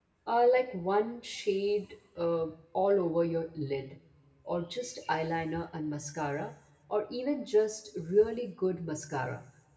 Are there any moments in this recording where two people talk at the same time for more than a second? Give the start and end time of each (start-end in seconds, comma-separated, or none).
none